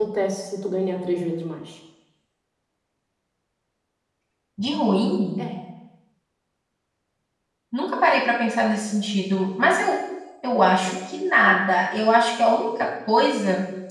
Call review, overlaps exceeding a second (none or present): none